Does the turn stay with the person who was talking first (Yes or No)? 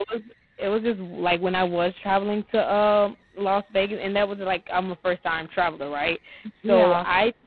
Yes